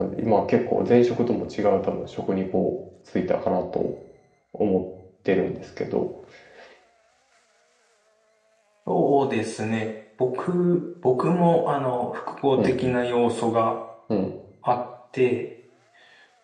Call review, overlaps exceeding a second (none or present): none